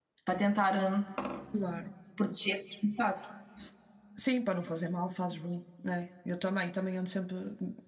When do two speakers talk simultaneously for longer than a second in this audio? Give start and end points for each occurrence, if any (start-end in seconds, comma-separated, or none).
none